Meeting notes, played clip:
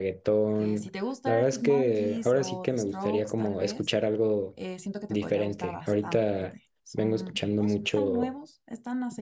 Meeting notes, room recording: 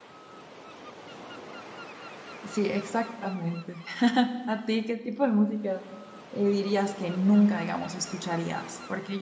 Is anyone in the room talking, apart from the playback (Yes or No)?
Yes